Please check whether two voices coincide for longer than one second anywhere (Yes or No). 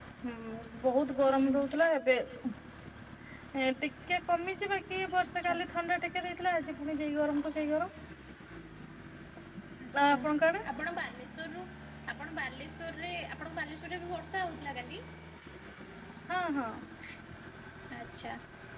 No